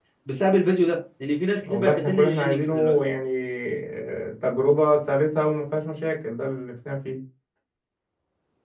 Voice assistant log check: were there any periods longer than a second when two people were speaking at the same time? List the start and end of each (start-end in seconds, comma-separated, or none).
1.6-3.0